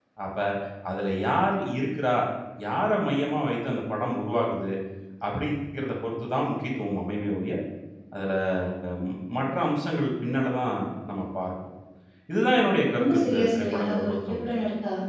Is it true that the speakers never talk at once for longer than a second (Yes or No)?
No